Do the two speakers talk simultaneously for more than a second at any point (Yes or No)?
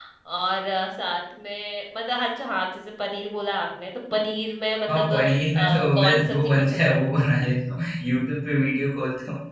Yes